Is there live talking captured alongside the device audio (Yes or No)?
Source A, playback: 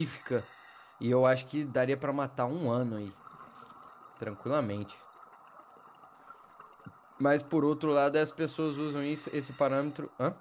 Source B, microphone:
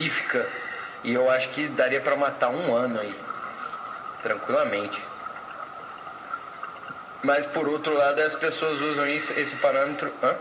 No